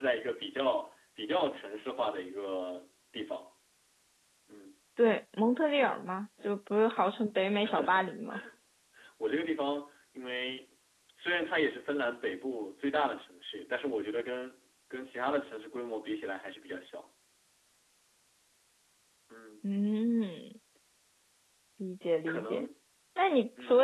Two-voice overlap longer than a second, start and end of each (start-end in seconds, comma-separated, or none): none